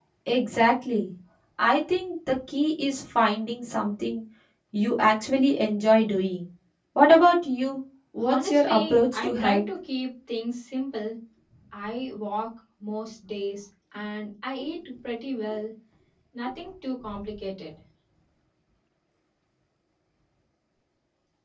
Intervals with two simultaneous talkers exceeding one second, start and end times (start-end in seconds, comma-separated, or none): 8.3-9.6